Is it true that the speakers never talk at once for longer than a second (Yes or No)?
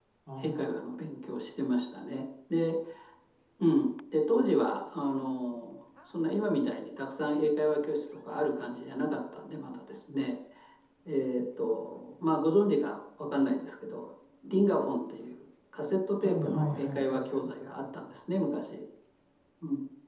No